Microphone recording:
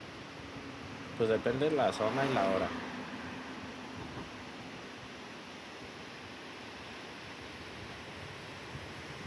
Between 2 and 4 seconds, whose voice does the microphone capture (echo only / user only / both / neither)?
user only